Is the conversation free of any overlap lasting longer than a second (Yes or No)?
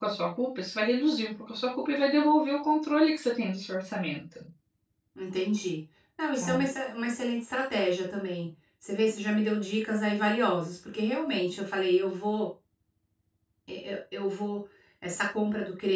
Yes